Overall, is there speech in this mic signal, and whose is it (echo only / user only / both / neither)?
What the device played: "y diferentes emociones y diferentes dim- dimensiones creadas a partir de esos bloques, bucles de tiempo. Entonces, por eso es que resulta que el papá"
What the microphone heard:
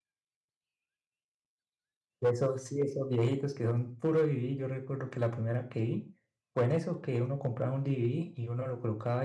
user only